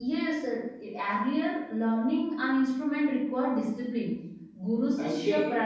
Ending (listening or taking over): taking over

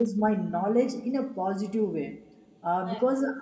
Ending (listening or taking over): listening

